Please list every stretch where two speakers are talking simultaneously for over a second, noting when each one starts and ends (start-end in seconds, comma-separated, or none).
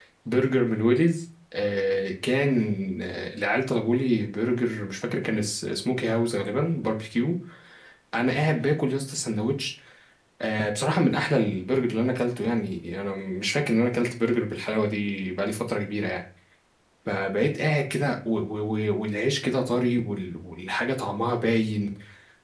none